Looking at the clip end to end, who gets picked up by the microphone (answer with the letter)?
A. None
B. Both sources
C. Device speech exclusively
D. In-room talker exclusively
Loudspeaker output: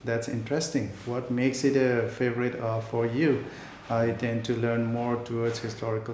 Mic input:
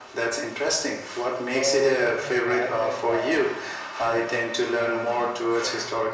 B